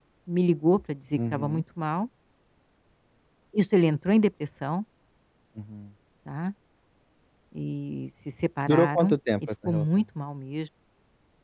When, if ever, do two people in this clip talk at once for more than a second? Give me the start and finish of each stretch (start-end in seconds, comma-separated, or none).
8.7-10.0